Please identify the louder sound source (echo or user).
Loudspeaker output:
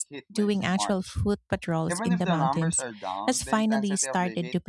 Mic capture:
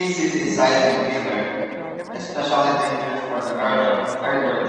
user